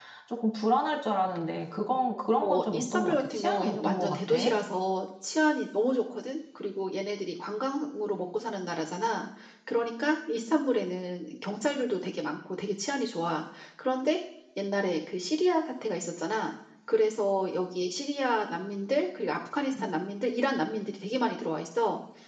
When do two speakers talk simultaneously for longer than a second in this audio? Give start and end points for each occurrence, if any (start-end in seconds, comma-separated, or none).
2.4-4.3